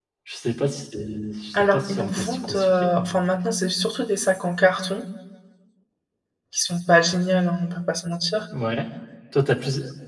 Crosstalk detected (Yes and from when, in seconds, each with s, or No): Yes, from 1.5 s